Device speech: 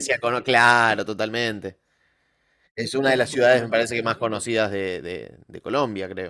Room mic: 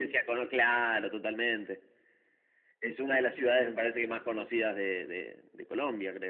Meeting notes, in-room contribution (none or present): none